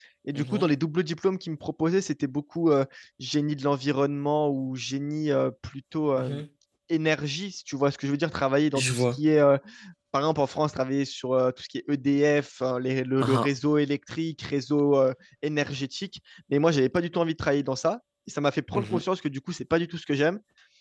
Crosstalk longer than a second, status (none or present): none